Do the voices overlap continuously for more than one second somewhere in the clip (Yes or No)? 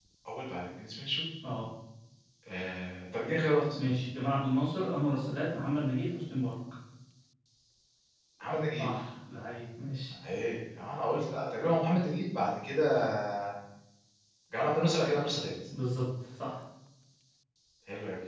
No